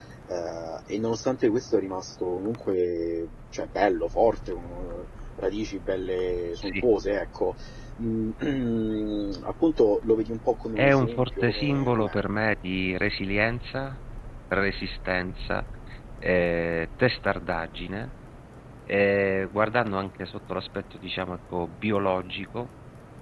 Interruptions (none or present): present